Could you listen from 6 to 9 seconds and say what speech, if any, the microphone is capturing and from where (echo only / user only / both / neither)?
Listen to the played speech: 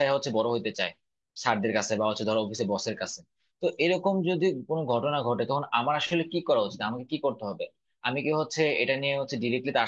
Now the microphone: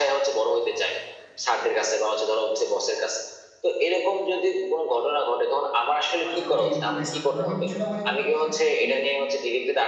both